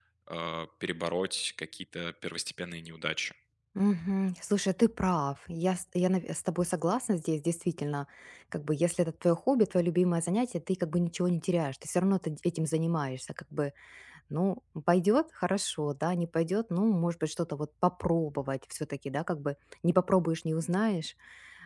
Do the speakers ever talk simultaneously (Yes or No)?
No